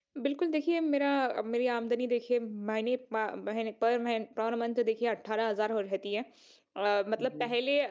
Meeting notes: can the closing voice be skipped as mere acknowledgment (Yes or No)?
Yes